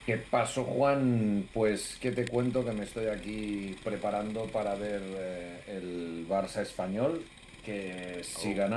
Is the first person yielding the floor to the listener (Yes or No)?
No